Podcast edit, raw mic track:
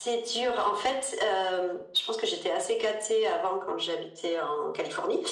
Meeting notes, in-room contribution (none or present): none